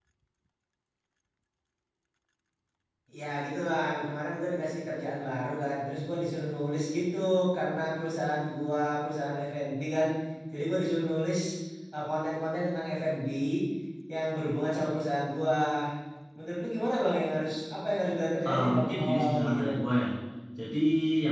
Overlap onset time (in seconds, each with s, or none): 18.4 s